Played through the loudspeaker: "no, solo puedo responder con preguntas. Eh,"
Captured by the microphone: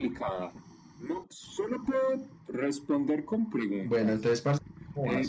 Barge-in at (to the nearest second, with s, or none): 4 s